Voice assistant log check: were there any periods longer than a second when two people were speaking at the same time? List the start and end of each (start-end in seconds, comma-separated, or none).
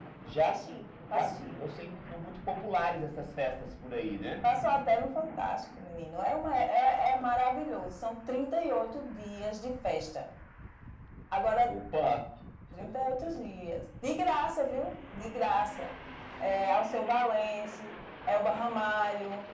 none